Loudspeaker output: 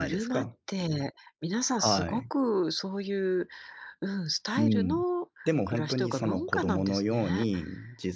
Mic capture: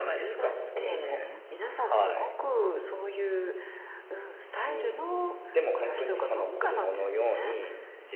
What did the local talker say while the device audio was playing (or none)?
そうですね。